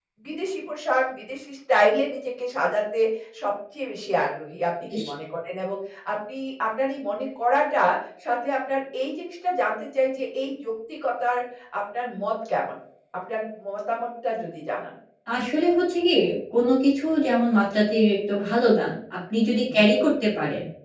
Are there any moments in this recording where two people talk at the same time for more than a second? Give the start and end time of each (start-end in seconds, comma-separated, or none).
none